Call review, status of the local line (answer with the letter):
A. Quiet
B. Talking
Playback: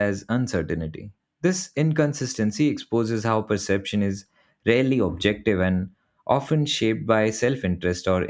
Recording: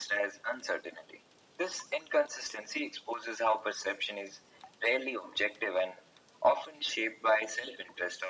A